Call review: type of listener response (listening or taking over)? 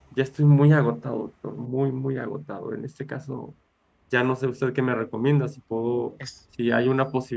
listening